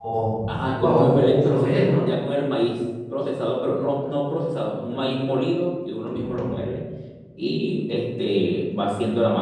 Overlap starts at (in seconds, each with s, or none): 0.7 s